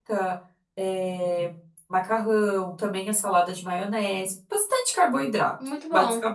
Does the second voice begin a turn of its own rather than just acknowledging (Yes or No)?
Yes